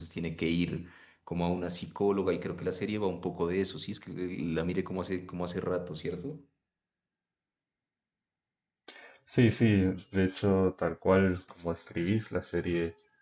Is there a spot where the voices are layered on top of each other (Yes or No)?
No